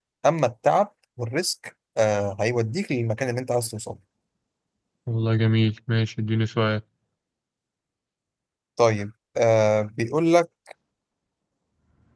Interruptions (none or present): none